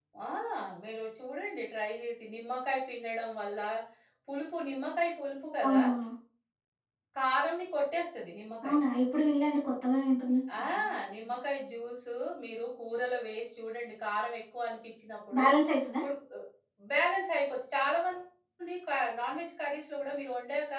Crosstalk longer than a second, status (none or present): none